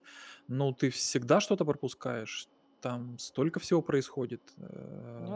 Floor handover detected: No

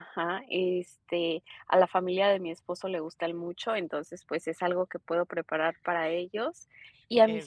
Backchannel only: Yes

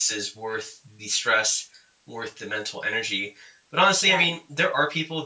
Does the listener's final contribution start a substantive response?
No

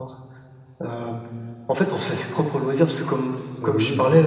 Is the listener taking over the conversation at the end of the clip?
No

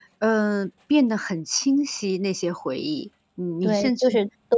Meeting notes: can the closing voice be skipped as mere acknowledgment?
No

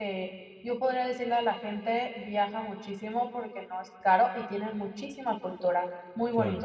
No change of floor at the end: No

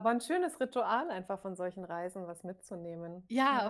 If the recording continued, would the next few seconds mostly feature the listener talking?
Yes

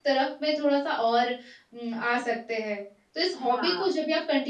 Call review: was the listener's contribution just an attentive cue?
Yes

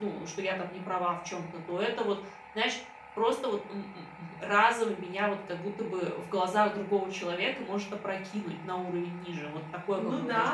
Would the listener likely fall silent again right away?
No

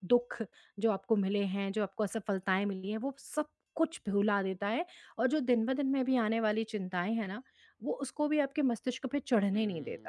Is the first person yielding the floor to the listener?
Yes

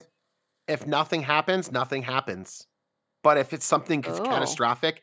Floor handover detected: No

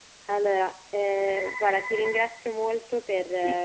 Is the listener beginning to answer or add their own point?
No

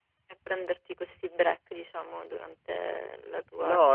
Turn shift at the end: Yes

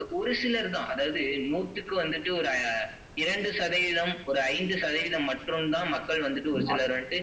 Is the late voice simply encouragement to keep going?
Yes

